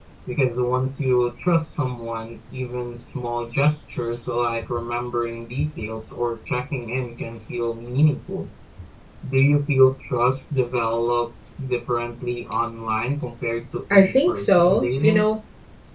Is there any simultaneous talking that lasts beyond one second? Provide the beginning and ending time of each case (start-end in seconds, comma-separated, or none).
13.9-15.2